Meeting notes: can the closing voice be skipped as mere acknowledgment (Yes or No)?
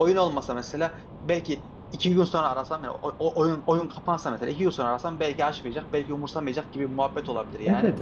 No